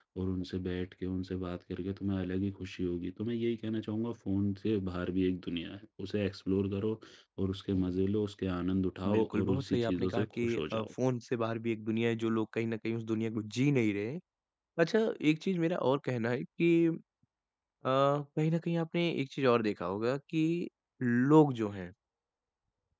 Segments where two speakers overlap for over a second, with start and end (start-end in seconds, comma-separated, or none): 9.1-10.9